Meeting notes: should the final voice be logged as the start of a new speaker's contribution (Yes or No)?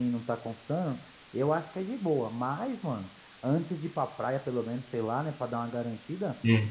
No